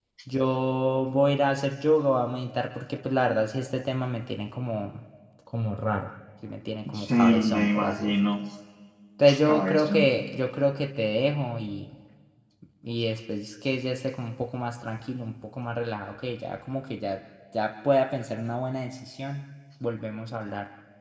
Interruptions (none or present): present